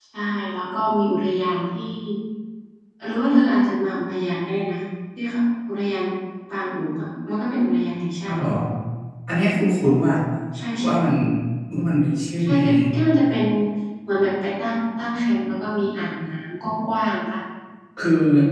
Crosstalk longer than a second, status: none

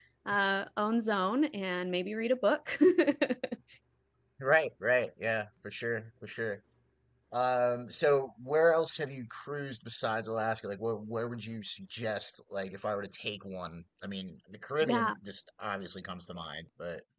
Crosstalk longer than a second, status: none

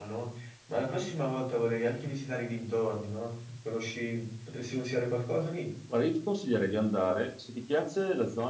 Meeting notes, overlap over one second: none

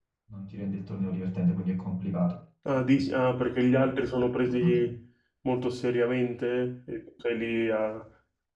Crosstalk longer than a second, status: none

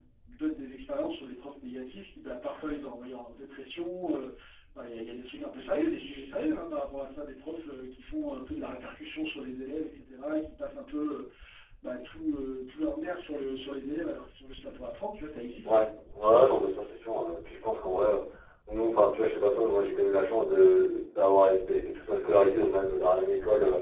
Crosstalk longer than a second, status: none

